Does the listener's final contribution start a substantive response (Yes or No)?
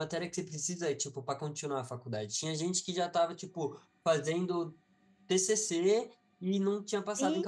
No